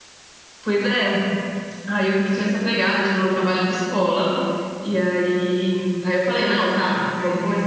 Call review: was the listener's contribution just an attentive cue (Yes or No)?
Yes